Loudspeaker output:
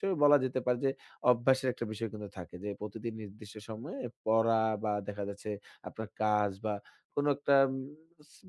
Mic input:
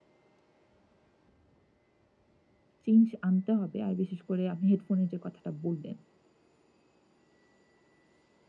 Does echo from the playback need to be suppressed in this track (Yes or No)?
No